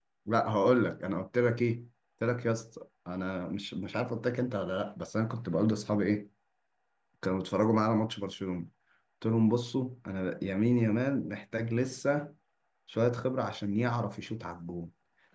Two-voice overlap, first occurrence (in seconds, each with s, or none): none